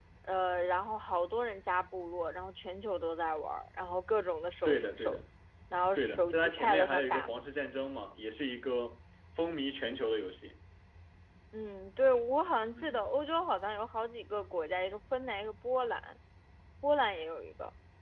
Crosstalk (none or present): present